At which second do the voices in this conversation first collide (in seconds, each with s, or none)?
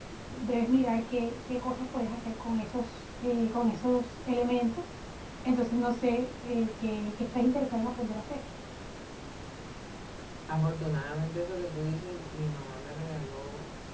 none